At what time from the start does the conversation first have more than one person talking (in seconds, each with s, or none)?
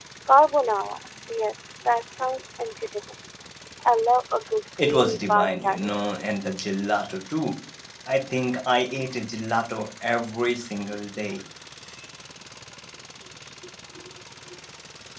4.8 s